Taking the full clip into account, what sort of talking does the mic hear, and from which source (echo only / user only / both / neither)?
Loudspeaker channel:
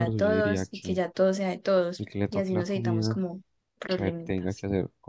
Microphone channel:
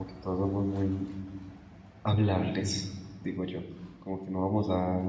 user only